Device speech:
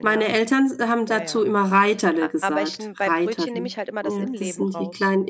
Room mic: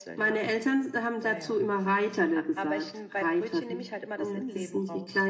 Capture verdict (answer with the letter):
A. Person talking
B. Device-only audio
B